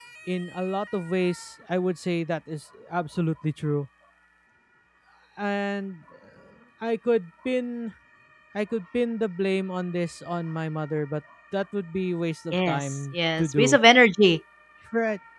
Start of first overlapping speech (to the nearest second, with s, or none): 13 s